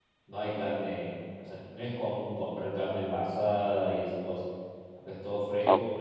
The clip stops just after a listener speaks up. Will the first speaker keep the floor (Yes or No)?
No